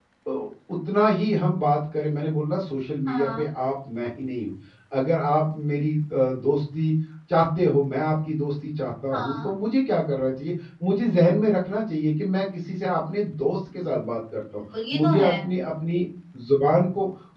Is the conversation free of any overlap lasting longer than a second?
Yes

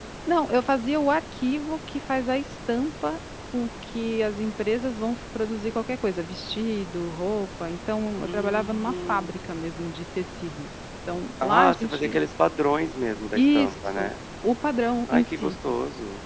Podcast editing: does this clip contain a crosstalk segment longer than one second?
Yes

